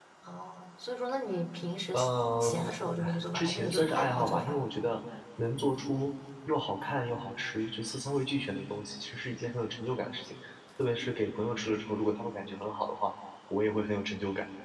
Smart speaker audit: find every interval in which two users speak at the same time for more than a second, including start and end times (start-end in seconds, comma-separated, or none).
3.0-4.6